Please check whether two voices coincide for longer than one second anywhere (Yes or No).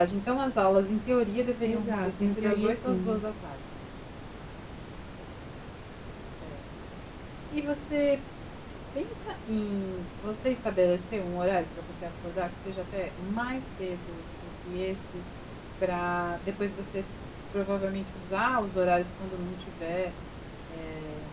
Yes